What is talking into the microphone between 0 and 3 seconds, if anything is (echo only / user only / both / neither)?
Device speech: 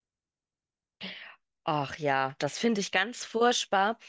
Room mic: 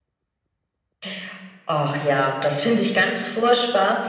echo only